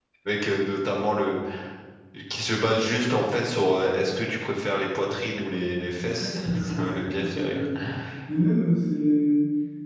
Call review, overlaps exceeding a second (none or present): present